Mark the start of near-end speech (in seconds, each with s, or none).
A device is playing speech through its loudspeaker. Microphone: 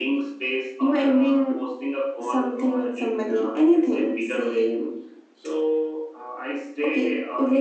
none